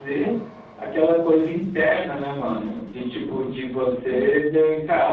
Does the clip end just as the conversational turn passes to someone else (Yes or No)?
No